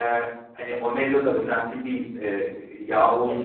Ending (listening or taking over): listening